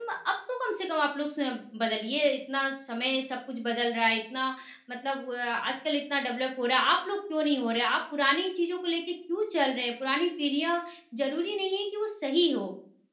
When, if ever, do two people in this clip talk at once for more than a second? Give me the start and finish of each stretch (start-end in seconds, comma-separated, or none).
none